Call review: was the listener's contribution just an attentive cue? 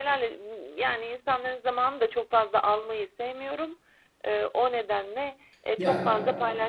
Yes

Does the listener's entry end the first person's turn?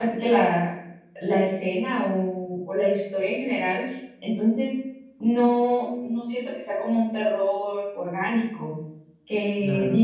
No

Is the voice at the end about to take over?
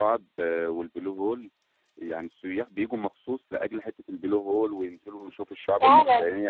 No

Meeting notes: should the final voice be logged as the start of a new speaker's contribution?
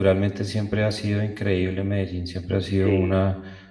No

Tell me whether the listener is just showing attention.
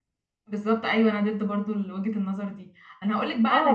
Yes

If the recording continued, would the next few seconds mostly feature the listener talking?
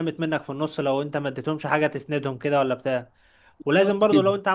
No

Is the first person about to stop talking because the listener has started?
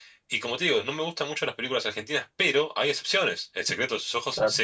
No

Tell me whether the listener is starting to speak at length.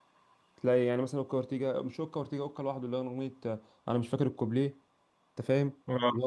Yes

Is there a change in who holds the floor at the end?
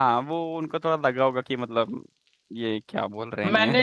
Yes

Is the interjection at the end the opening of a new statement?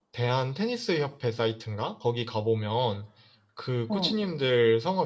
No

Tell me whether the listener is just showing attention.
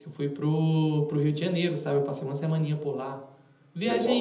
Yes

